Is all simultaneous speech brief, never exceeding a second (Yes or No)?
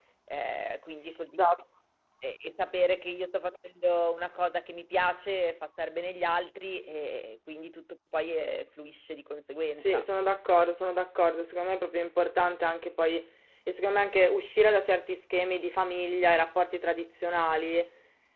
Yes